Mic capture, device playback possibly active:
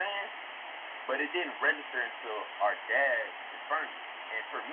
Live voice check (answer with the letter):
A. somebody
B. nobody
B